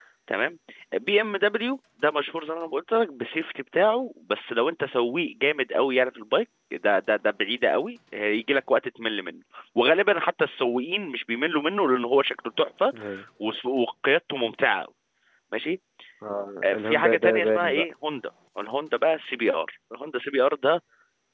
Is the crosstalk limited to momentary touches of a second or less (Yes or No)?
No